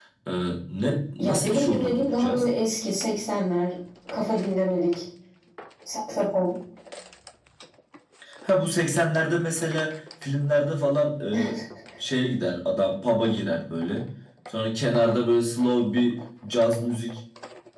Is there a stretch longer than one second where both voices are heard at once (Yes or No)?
Yes